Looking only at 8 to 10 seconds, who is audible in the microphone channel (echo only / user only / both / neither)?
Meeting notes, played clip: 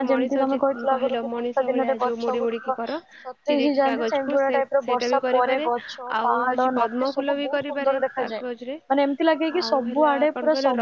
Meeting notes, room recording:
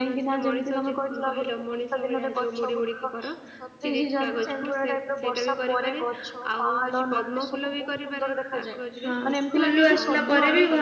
both